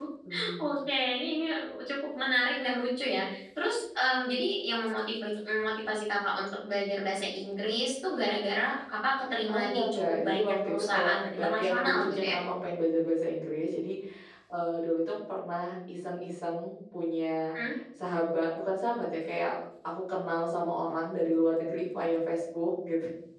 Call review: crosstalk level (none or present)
present